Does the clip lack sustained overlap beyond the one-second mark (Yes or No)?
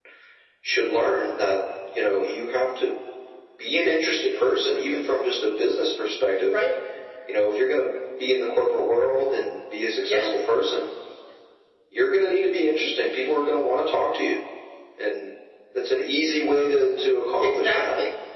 Yes